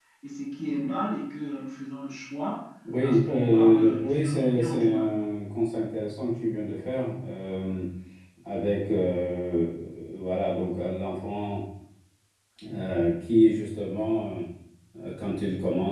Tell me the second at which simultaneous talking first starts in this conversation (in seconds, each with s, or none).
3.0 s